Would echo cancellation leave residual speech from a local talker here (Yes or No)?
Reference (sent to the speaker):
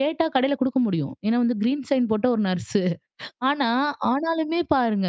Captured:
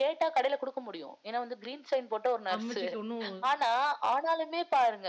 Yes